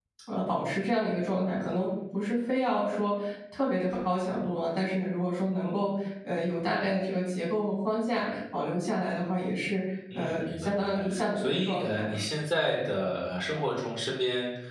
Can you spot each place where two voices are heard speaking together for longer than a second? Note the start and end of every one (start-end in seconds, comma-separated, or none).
10.1-12.2